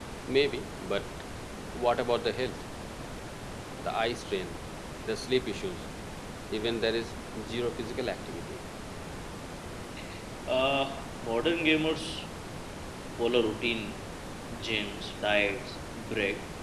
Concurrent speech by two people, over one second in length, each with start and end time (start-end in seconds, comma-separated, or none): none